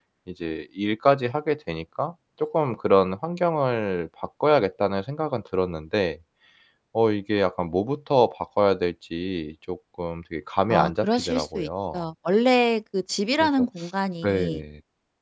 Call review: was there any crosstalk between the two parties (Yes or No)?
Yes